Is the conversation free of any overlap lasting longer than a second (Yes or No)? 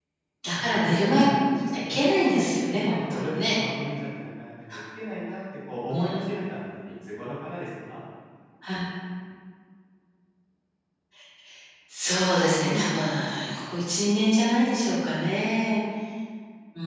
No